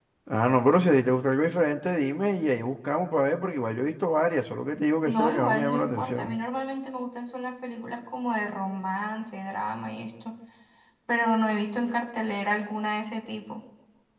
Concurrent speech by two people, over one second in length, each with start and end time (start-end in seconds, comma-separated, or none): 5.0-6.4